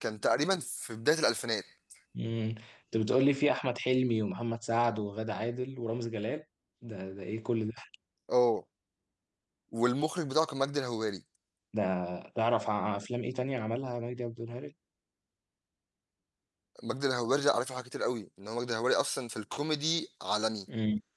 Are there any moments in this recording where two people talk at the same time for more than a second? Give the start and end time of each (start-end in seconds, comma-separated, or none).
none